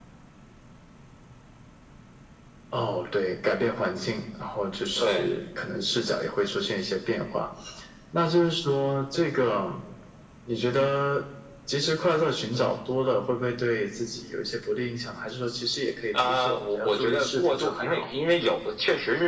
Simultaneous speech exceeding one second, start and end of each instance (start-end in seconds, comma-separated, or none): 16.2-18.1